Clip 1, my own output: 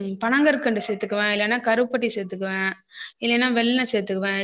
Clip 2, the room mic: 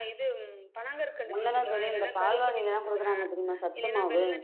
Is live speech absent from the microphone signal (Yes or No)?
No